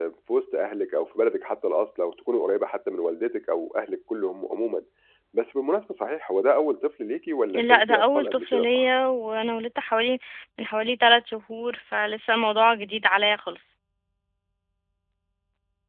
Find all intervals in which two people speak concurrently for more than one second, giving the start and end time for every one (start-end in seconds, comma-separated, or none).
7.5-8.8